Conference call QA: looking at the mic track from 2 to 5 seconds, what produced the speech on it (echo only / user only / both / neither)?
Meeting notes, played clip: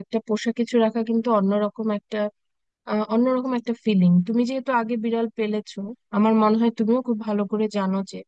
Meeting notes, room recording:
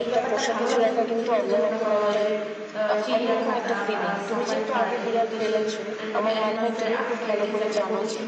both